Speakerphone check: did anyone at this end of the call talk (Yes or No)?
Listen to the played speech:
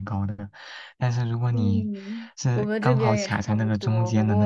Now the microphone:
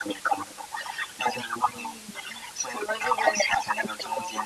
No